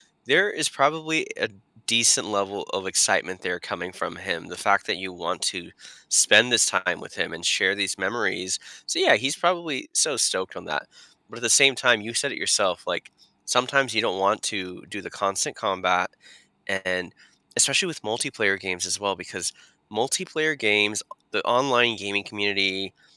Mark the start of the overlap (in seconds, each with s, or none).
none